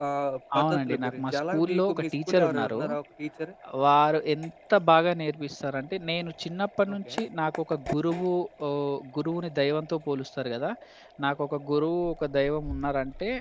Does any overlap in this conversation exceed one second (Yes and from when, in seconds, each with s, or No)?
Yes, from 0.6 s